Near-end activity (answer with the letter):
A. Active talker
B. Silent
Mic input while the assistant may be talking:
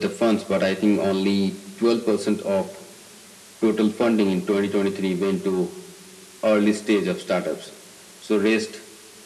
B